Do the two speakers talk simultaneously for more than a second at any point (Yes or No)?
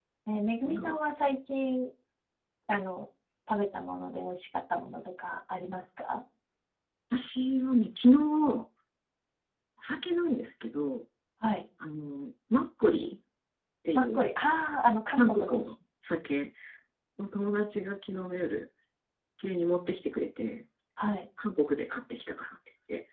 No